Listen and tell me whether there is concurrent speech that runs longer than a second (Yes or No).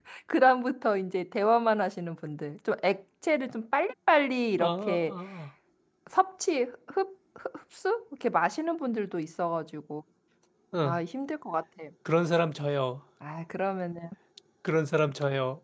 No